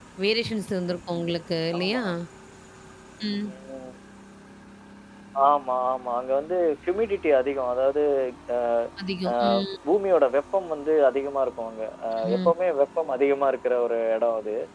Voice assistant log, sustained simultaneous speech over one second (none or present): none